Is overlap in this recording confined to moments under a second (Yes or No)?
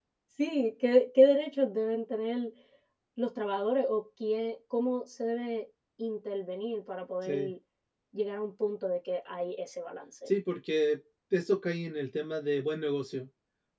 Yes